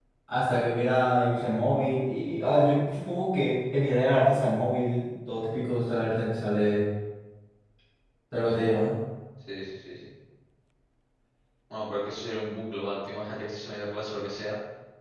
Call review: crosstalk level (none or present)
none